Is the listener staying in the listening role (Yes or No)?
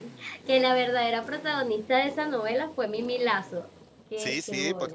No